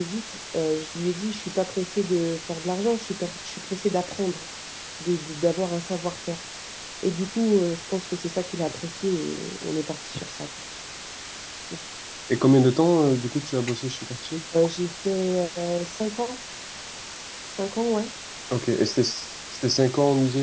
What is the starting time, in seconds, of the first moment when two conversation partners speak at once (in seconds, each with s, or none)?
none